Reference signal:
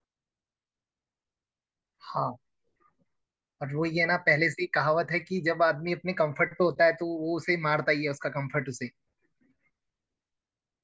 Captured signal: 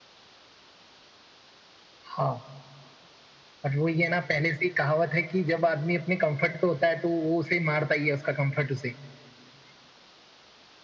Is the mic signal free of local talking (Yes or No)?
Yes